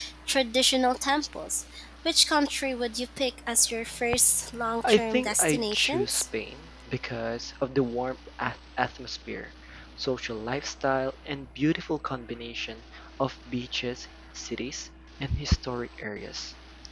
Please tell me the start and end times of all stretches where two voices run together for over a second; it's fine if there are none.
4.8-6.2

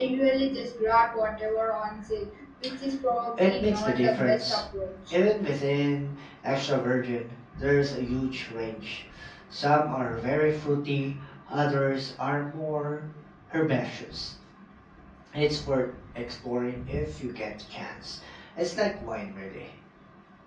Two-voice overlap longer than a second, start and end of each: 3.4-4.6

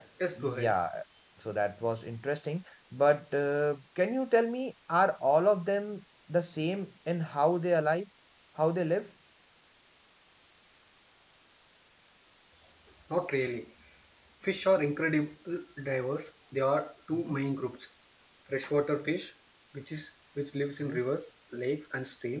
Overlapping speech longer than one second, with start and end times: none

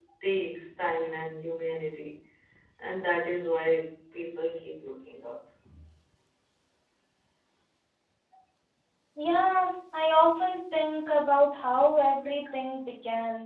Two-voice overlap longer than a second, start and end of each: none

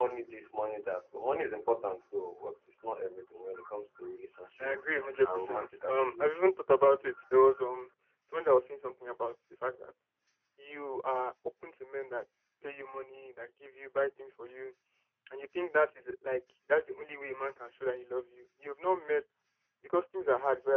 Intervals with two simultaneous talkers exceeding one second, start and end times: 5.2-6.6

